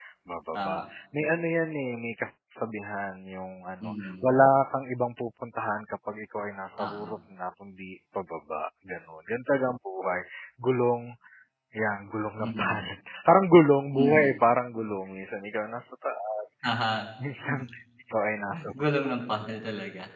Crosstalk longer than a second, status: none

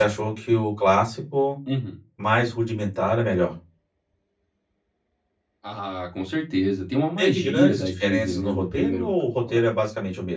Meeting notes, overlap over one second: present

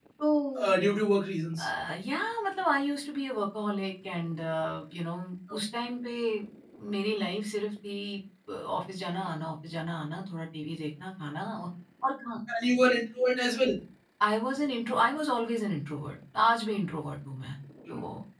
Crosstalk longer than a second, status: none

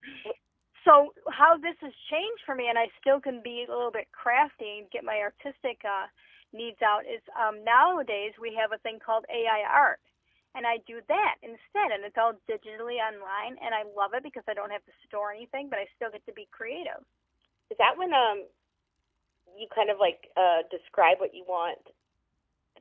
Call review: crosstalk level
none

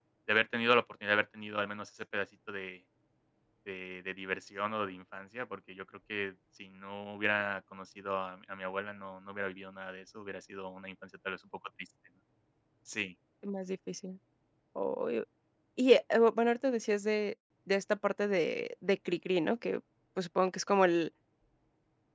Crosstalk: none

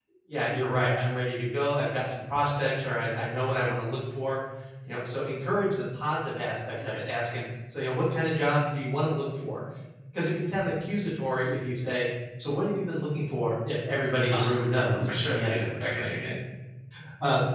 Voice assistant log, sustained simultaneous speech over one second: present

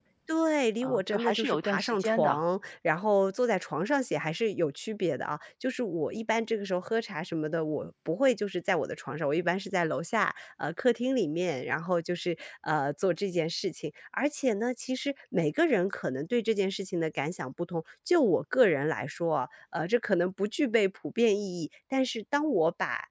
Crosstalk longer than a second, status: present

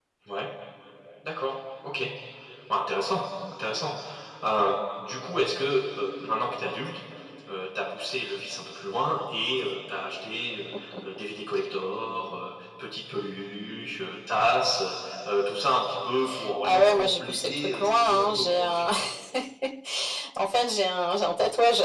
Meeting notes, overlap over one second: present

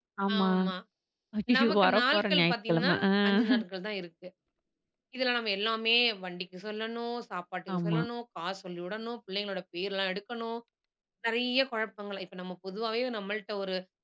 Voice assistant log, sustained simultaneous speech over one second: present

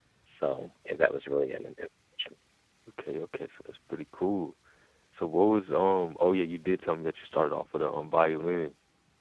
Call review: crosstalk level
none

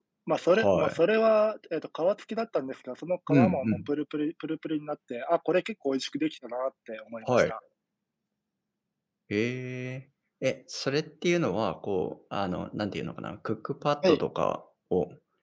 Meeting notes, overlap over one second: none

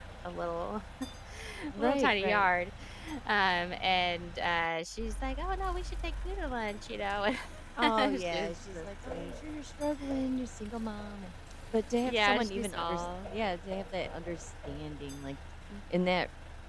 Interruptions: present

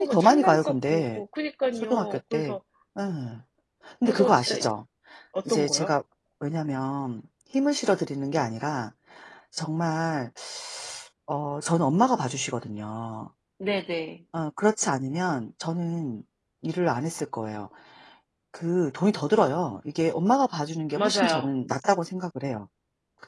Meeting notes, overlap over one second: present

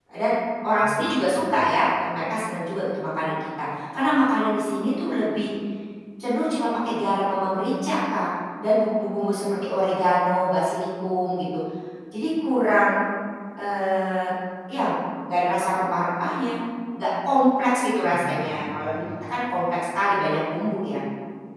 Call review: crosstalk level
present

